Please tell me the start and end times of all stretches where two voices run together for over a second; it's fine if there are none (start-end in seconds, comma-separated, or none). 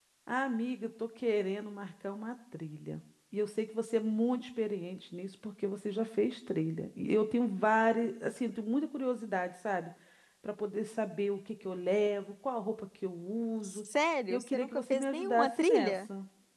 14.3-16.0